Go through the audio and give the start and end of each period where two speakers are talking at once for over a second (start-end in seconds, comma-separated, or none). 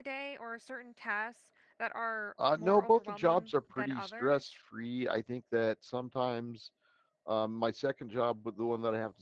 2.6-4.5